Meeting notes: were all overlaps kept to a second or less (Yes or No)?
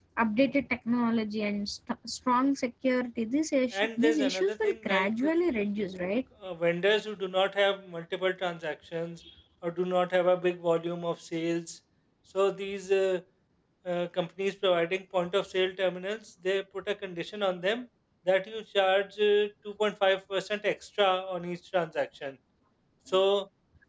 No